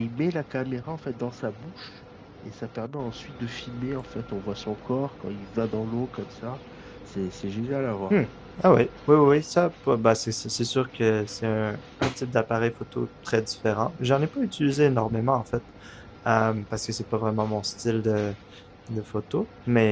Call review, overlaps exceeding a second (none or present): none